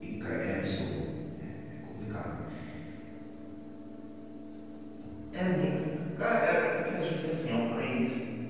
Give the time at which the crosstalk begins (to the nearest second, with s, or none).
none